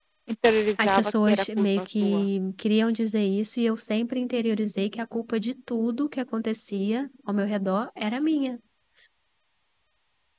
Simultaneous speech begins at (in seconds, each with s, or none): 0.8 s